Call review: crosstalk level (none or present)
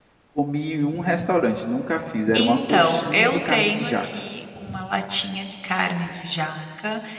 present